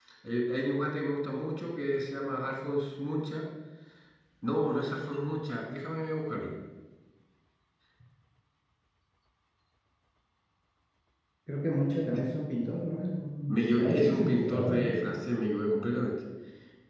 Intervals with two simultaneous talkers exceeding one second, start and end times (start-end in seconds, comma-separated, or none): 13.5-14.9